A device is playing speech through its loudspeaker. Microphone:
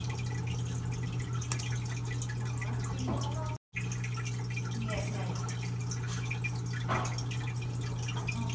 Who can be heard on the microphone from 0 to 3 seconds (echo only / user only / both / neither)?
neither